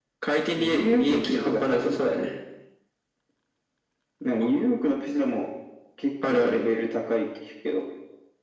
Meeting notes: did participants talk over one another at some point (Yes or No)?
Yes